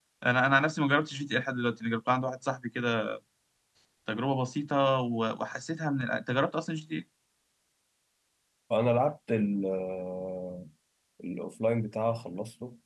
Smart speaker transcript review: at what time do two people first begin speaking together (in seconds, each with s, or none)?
none